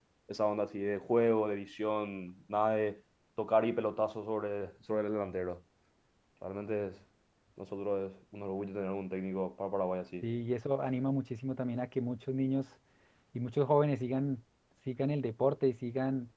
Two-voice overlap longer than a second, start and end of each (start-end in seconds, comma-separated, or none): none